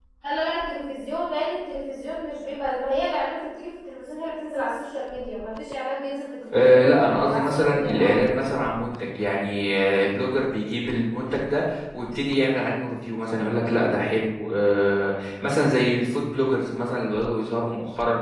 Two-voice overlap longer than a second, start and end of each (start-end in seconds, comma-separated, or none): 6.5-8.2